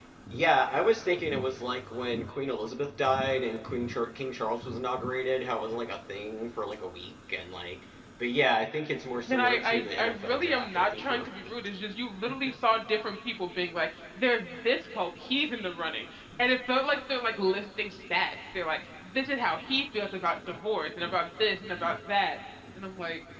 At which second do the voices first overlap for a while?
9.3 s

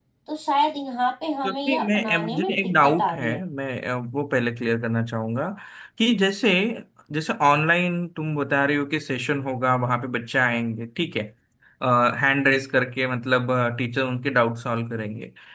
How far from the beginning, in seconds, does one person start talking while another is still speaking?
1.4 s

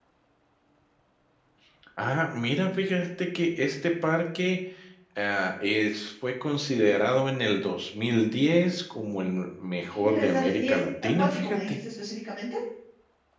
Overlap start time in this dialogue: 9.9 s

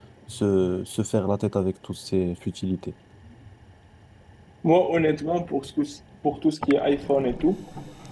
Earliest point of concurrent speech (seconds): none

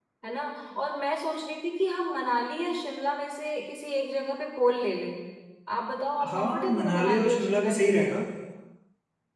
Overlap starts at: 6.3 s

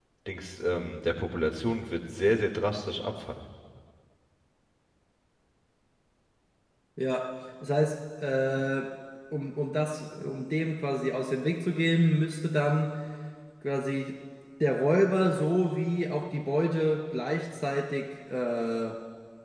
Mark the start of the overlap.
none

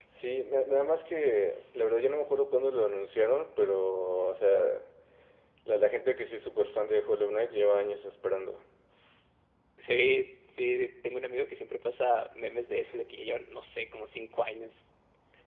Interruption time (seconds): none

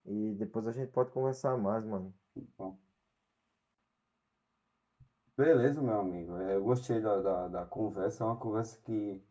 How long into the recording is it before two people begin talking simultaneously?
none

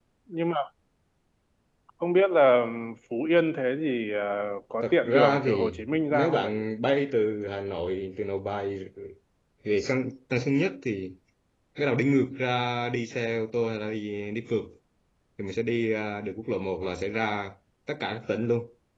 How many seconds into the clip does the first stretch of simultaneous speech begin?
4.8 s

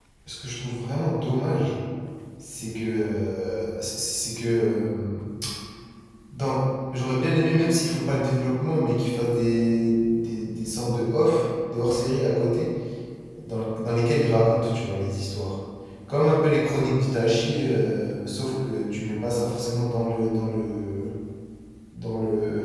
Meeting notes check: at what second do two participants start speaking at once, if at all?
none

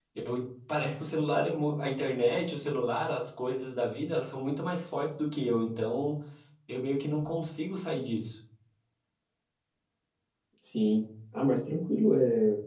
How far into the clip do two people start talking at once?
none

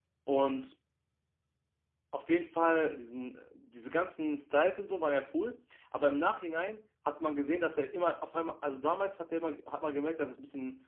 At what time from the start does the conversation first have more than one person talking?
none

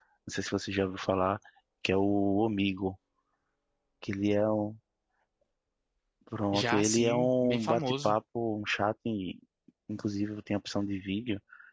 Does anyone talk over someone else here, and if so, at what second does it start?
6.5 s

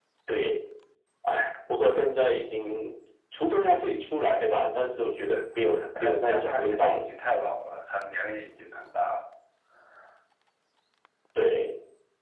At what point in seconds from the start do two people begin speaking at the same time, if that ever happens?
5.8 s

